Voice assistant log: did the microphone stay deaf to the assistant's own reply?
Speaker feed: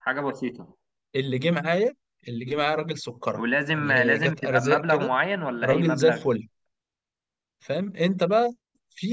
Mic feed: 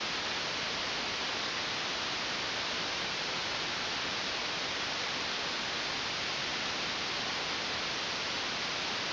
Yes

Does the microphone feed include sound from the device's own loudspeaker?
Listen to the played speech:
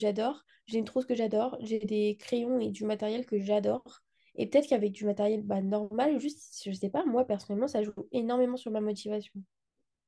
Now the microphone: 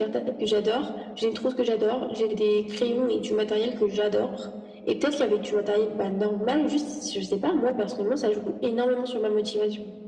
Yes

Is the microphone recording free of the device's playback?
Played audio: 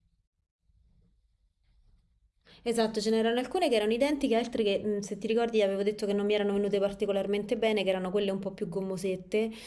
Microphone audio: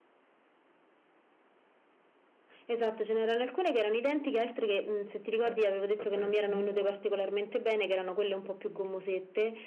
No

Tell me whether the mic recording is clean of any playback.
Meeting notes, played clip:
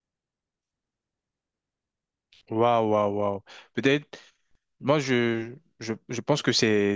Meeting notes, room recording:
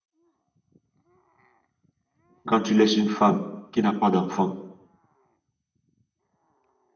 Yes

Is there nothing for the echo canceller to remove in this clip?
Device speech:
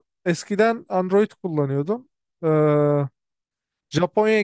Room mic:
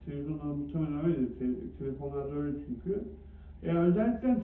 Yes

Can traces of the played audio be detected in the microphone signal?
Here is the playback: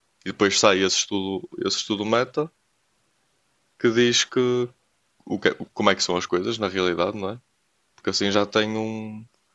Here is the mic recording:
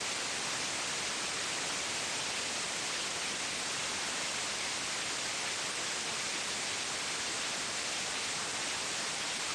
No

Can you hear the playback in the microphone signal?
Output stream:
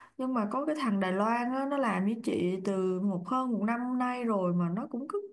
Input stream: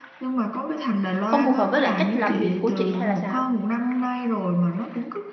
Yes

